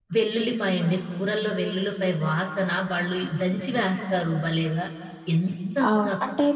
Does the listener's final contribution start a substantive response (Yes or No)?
Yes